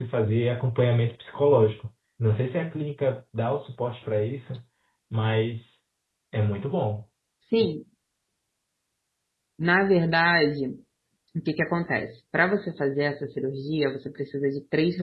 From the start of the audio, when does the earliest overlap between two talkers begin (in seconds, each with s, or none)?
none